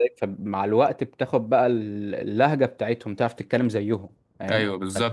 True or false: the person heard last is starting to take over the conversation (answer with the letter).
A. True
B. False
A